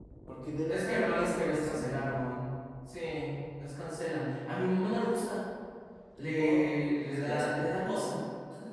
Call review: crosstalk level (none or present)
present